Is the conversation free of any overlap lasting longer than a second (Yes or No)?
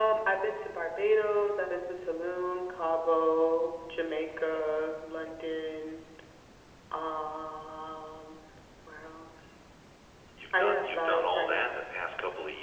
No